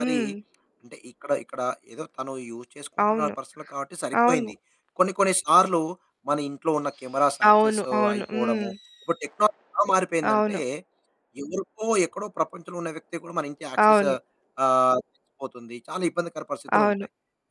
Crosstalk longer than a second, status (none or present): present